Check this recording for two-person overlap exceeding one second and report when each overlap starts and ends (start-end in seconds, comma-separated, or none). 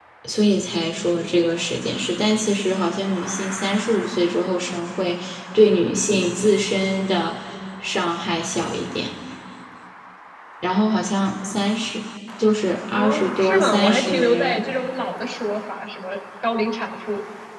13.0-14.6